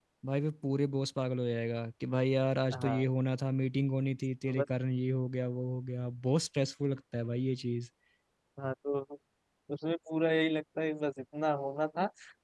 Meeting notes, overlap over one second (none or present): none